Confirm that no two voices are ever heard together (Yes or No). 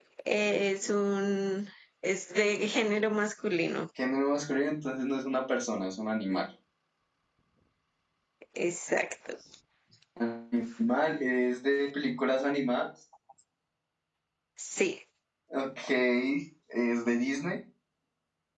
Yes